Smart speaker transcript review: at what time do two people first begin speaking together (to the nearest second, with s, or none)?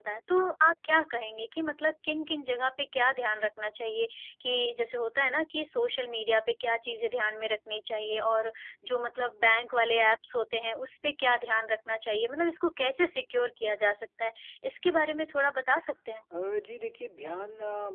none